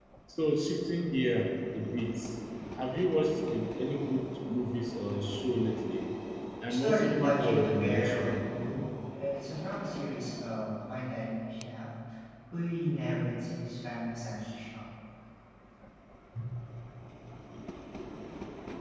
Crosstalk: present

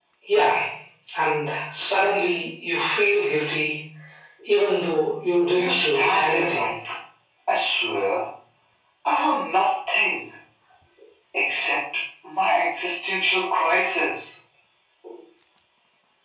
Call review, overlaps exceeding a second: present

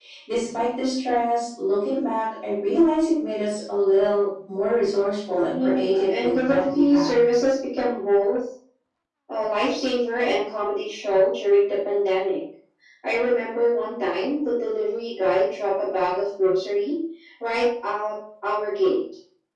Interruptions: present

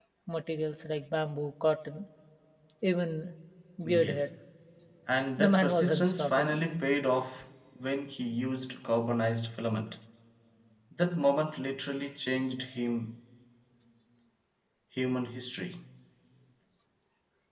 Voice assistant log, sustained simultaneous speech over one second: present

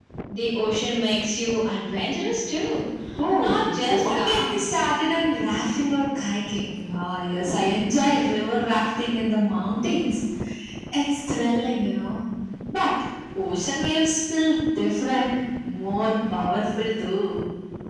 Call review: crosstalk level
present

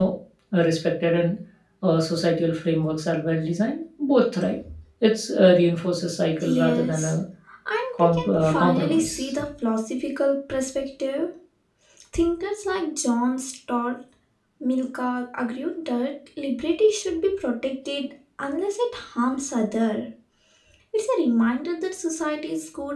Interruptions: present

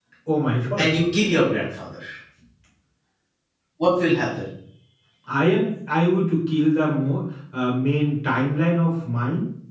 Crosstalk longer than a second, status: none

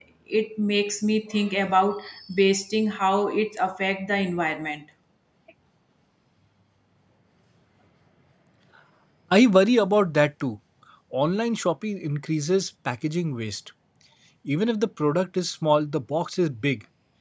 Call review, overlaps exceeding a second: none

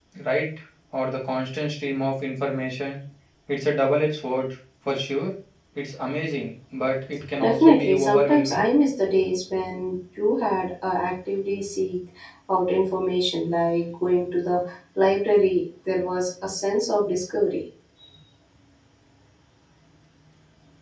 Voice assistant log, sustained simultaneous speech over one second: present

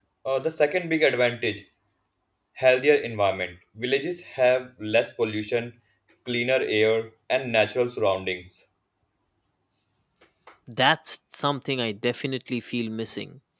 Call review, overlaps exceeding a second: none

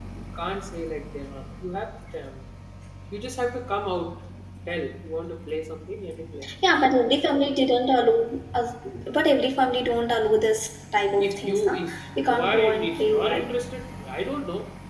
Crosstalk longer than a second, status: present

